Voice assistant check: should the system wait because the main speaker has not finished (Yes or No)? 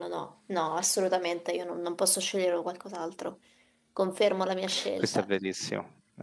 No